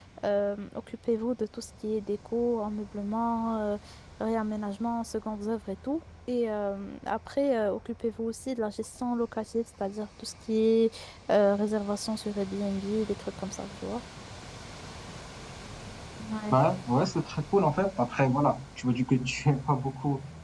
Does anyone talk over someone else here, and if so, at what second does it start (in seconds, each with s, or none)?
none